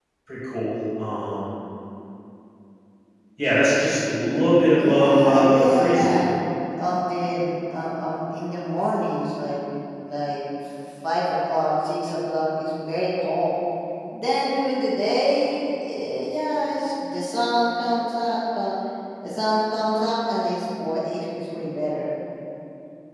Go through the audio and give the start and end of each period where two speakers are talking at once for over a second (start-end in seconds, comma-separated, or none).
4.8-6.2